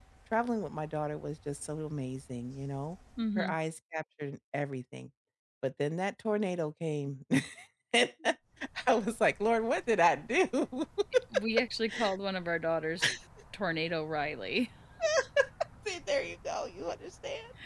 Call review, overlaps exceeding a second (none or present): none